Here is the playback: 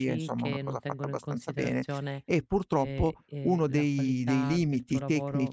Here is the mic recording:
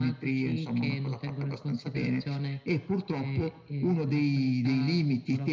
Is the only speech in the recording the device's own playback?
Yes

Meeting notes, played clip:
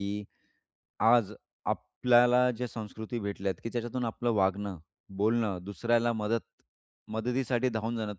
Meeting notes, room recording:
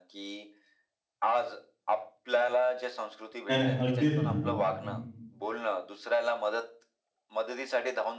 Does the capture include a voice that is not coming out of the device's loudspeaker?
Yes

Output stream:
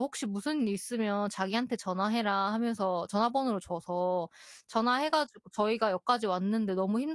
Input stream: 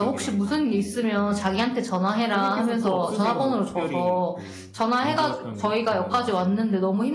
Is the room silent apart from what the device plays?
No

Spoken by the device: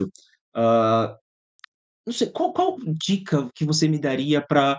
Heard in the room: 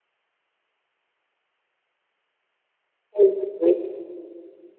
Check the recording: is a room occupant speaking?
Yes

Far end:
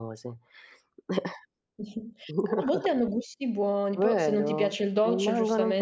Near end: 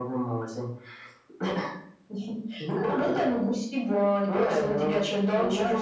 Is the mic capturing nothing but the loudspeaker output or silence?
Yes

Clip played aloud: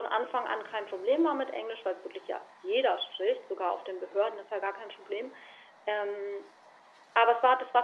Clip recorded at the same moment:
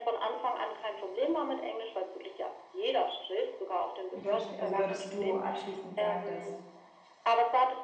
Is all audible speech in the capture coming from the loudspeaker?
No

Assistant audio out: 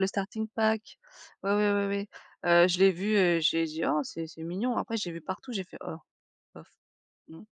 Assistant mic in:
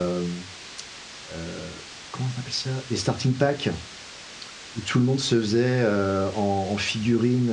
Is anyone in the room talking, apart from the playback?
Yes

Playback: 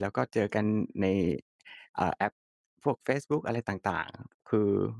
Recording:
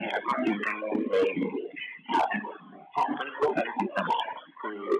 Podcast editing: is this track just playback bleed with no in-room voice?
Yes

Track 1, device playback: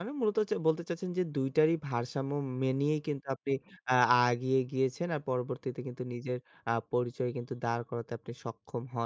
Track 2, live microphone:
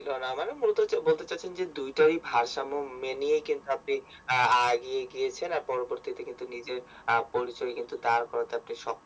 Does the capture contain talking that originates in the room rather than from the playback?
No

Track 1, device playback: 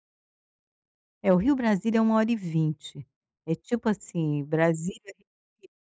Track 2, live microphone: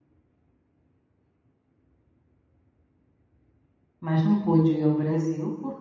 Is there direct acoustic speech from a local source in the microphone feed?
Yes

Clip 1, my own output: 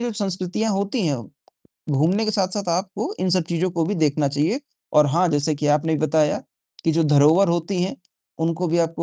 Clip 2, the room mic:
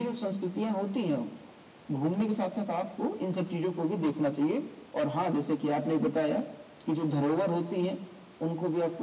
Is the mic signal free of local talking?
Yes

